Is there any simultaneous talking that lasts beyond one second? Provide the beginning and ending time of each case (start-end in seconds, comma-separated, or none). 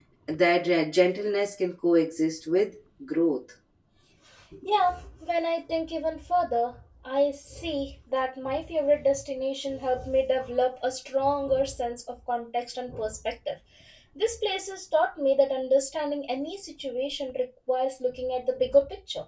none